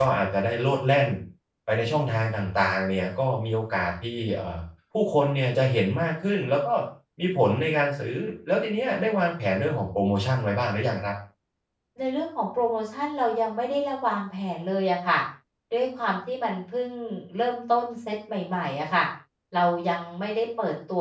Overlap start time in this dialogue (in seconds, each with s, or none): none